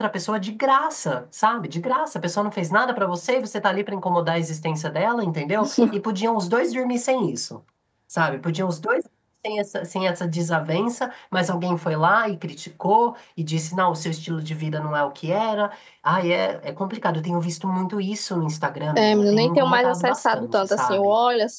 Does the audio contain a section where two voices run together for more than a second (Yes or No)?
Yes